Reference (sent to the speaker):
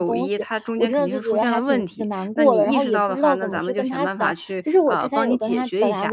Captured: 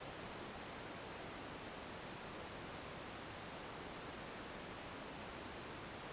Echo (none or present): none